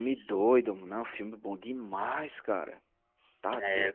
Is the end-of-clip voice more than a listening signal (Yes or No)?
No